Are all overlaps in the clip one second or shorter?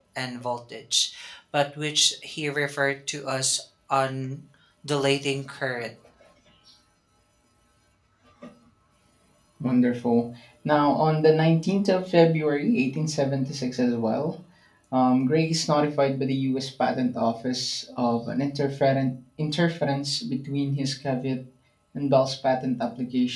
Yes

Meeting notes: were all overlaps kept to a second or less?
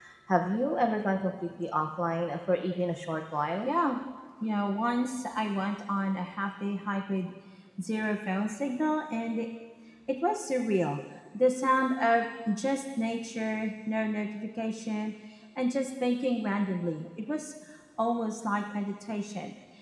Yes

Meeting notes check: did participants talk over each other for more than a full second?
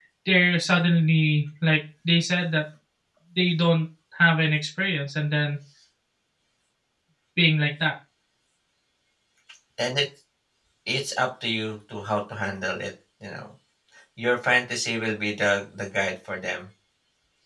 No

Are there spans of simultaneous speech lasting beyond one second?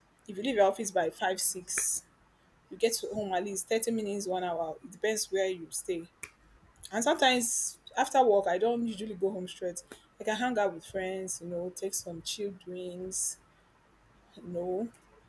No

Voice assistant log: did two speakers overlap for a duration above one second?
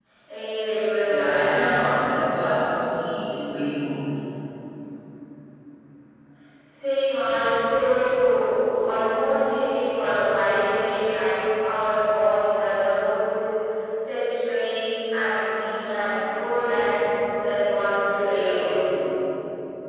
Yes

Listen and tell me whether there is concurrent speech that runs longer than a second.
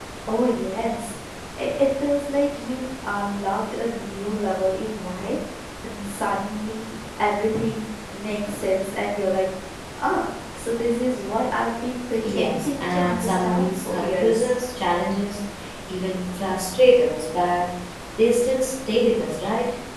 Yes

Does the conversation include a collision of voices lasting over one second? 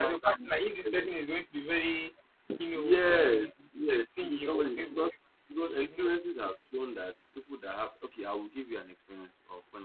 Yes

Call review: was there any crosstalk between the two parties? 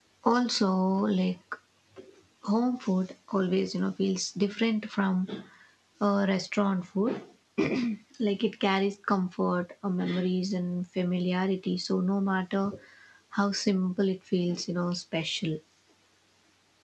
No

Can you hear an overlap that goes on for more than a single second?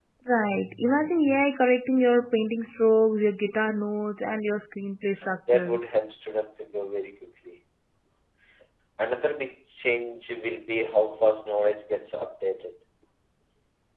No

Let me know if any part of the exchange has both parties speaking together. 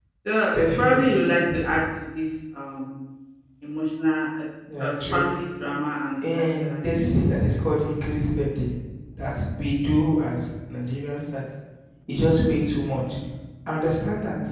Yes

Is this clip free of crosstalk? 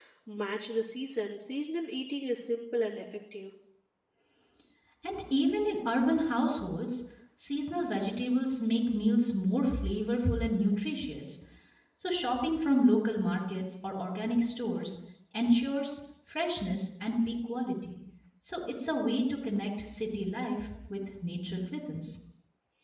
Yes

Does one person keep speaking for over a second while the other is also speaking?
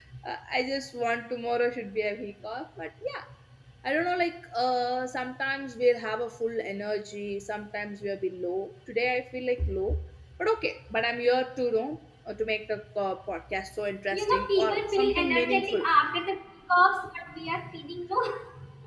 Yes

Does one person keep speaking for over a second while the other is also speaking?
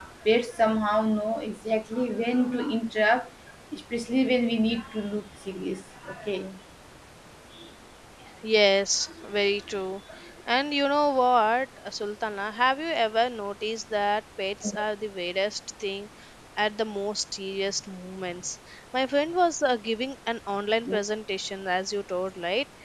No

